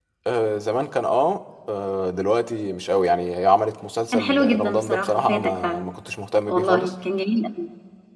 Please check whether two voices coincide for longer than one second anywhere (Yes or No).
Yes